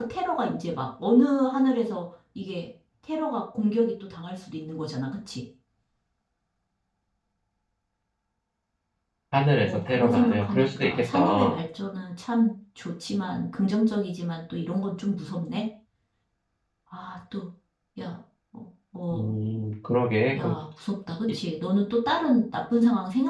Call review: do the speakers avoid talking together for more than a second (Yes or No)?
No